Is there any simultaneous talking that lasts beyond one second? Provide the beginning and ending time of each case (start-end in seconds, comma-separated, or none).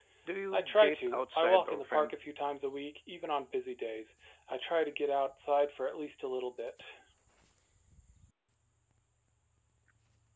0.5-2.1